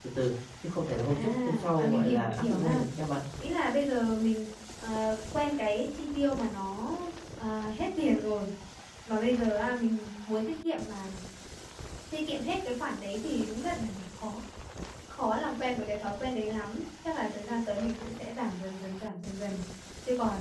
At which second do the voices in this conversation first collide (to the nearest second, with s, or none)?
1 s